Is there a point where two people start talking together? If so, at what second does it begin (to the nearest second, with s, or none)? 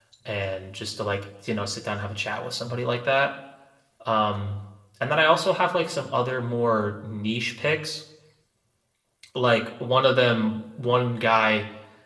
none